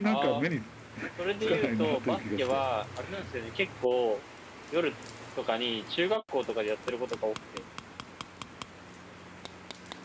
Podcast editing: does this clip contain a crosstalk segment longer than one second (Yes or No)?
Yes